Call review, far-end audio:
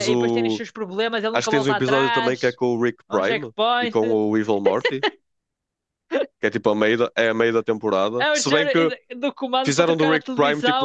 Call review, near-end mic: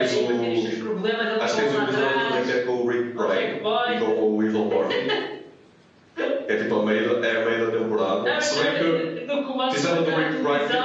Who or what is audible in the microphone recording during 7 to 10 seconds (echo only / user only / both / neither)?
echo only